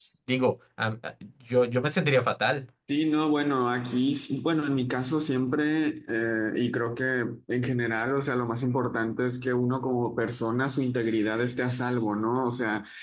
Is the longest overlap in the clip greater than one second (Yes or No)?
No